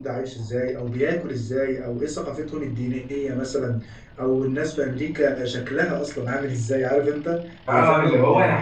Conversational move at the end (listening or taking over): taking over